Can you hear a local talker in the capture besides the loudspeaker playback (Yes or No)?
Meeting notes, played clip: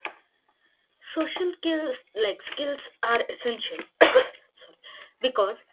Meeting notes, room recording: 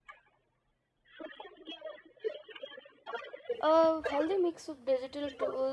Yes